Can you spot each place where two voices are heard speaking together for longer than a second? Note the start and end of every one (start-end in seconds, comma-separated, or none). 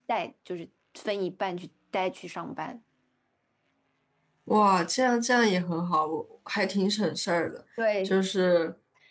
none